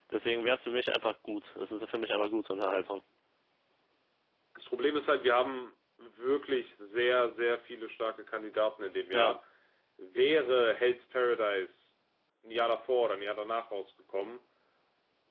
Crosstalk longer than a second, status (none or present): none